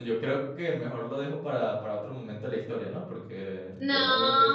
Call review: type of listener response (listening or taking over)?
taking over